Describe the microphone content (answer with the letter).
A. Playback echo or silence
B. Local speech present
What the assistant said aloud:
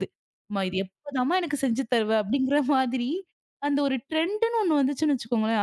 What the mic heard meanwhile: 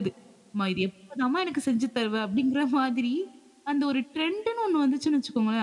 A